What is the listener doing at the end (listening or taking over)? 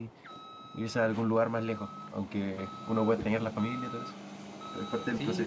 taking over